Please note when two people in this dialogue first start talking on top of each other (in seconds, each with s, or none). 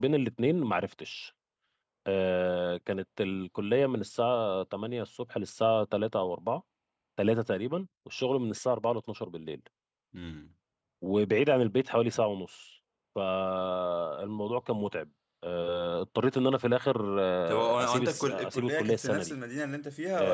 17.5 s